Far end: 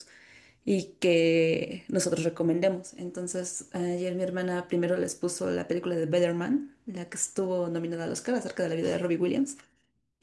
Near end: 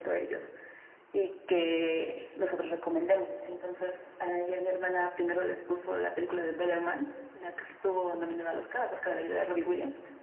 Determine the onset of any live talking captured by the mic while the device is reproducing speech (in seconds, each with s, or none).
none